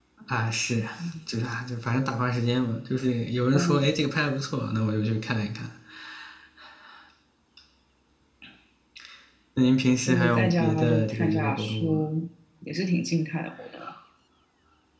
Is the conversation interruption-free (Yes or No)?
No